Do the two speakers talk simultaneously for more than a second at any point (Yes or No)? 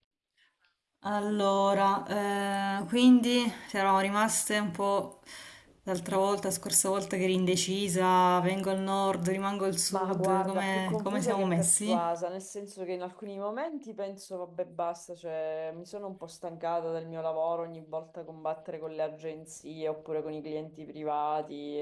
Yes